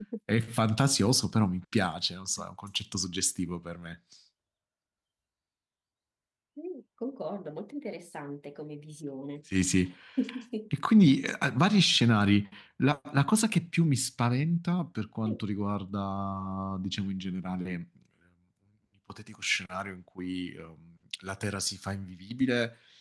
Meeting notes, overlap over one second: none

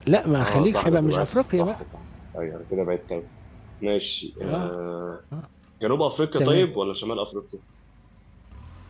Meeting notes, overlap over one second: present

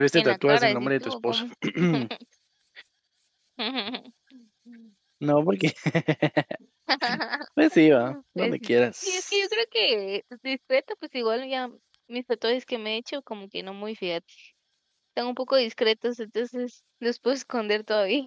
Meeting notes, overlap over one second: present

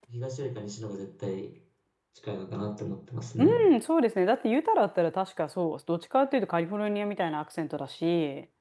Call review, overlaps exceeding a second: none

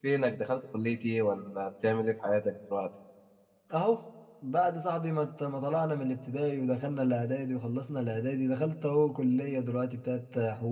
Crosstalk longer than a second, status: none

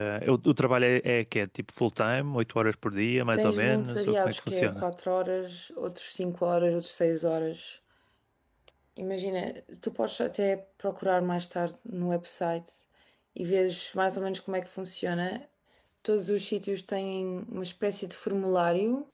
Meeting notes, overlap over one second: present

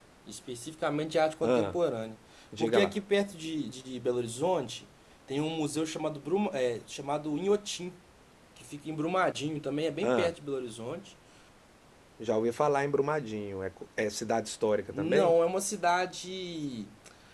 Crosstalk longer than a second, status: none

